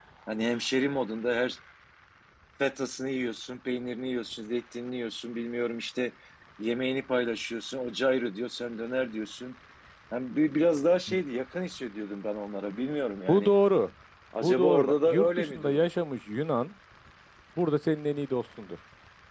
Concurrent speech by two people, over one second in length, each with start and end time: 14.4-15.9

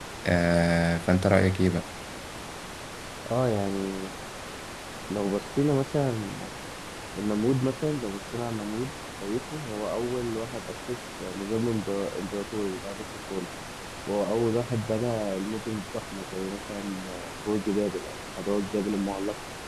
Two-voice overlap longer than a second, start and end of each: none

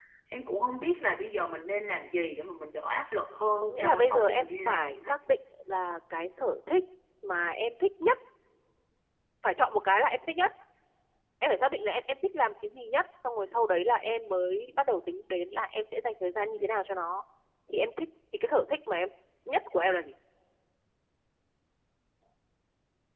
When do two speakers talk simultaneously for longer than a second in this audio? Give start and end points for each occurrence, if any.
3.6-4.9

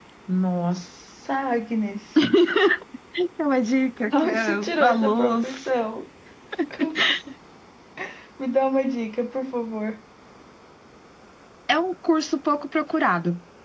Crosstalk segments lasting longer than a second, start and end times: 4.2-5.7

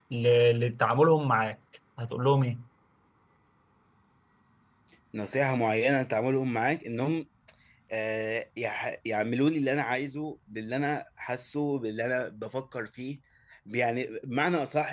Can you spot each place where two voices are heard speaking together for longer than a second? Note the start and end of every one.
none

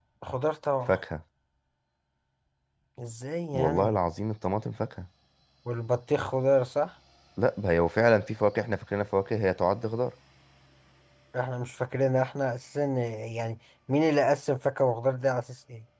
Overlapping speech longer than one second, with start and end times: none

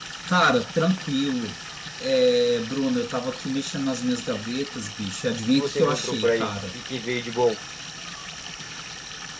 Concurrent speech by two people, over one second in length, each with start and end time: 5.5-6.7

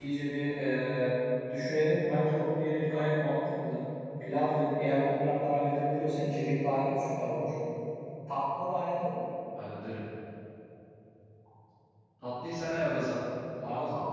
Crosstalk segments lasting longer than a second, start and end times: none

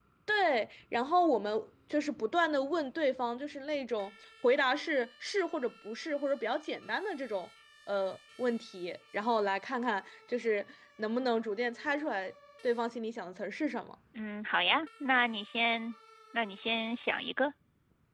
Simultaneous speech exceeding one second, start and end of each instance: none

